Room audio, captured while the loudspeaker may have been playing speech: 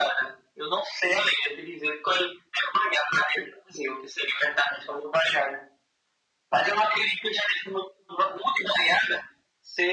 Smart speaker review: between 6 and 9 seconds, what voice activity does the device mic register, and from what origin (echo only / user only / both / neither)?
echo only